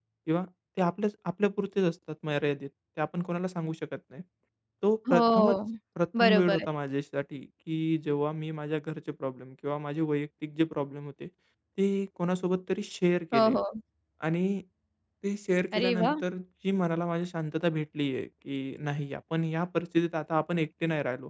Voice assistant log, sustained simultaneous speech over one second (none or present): none